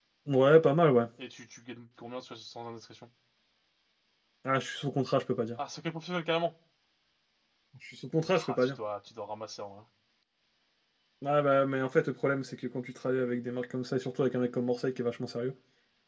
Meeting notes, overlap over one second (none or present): none